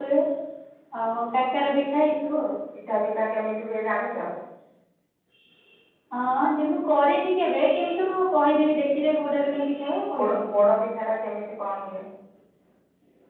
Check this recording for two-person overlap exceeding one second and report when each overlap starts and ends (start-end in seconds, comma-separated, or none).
none